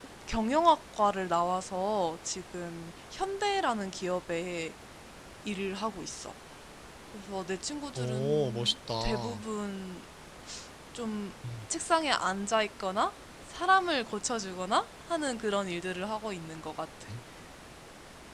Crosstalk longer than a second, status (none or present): present